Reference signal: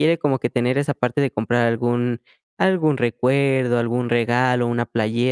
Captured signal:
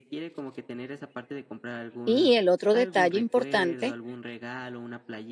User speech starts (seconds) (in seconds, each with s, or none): 2.0 s